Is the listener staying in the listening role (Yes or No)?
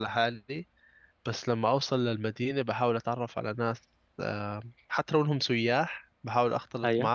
Yes